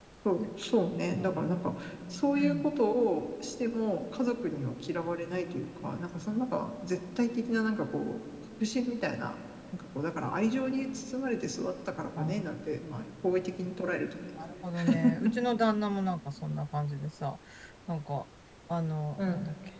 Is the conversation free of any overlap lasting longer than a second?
Yes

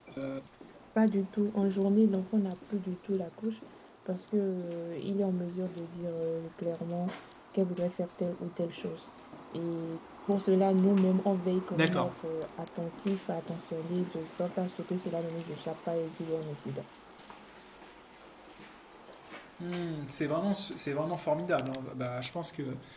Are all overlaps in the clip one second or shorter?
Yes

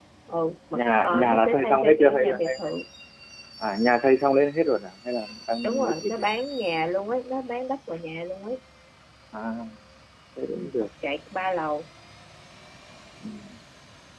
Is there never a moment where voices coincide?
No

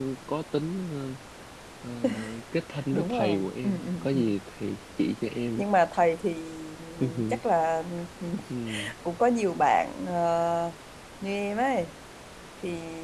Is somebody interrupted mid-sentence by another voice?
Yes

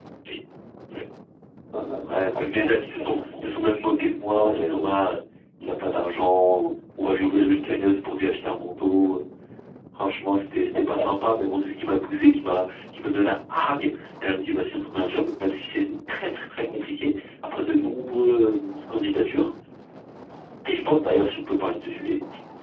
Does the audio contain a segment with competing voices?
Yes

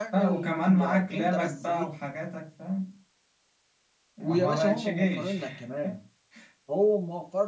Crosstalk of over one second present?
Yes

